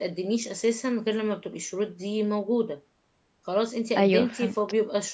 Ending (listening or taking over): listening